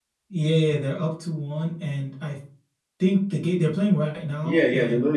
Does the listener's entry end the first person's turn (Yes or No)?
Yes